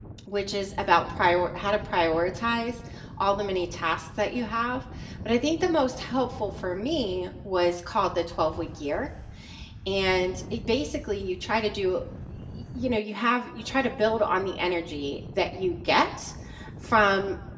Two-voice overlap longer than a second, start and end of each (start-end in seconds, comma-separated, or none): none